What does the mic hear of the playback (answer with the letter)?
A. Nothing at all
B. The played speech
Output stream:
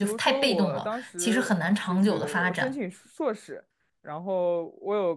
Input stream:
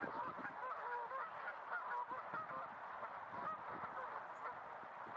A